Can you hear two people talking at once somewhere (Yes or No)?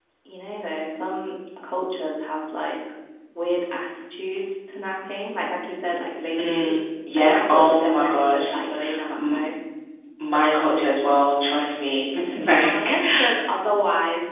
Yes